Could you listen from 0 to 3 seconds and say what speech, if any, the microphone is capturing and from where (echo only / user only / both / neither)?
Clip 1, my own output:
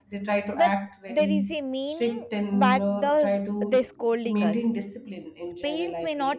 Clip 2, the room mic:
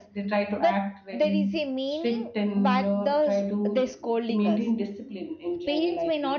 echo only